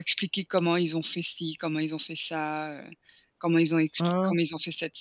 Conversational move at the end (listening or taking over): listening